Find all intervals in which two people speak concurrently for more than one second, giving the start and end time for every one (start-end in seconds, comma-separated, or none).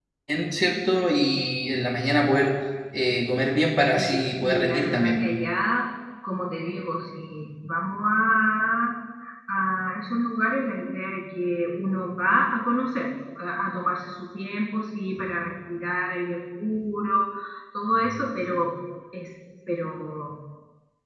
4.0-5.3